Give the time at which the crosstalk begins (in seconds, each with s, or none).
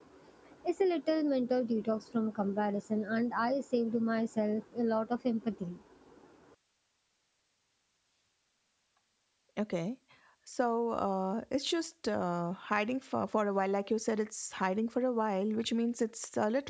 none